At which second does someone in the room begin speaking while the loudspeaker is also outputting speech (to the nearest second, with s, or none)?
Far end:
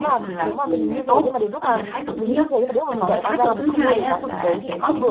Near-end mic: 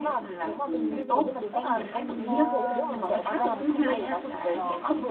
1 s